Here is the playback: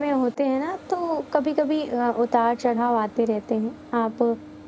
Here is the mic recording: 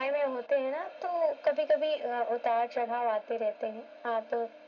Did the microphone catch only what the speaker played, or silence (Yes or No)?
Yes